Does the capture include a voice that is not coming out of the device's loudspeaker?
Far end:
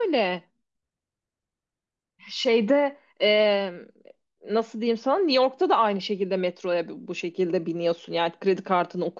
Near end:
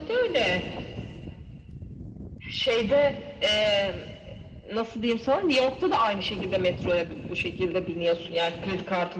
No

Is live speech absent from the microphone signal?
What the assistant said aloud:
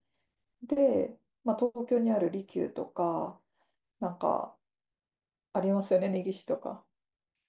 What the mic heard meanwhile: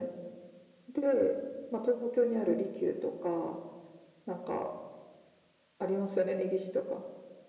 Yes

